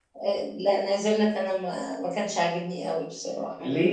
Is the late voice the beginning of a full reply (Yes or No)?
Yes